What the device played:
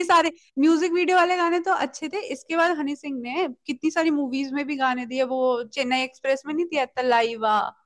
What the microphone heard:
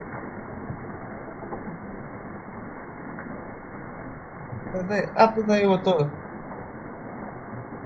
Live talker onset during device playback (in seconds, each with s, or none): 4.7 s